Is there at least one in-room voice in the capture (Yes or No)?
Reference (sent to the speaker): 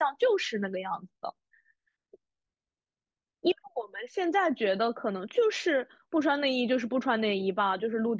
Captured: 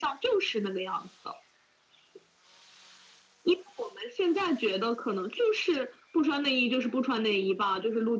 No